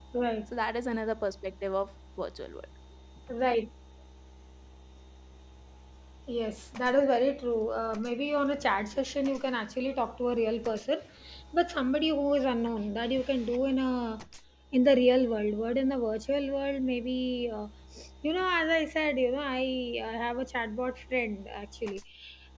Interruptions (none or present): none